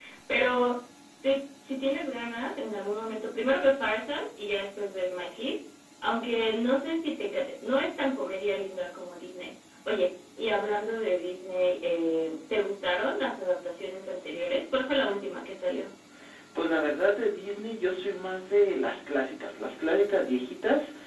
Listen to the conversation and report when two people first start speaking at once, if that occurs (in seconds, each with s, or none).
none